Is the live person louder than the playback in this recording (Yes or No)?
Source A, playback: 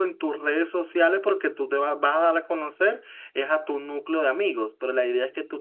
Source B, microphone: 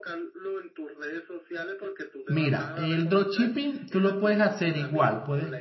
Yes